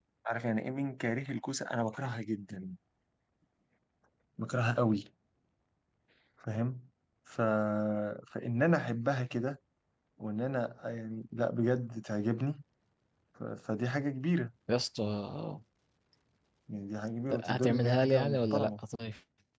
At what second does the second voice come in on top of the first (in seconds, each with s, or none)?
17.4 s